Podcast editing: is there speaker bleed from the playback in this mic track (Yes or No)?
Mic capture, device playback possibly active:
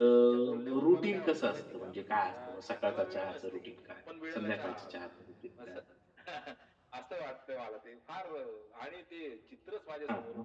Yes